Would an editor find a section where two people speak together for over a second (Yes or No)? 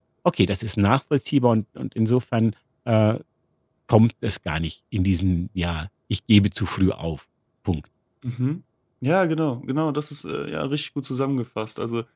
No